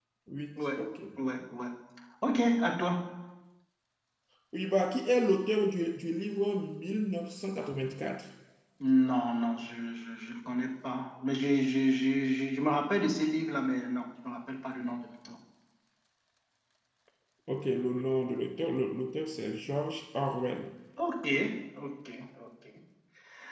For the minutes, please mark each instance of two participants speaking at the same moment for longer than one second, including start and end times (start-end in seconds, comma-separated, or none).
none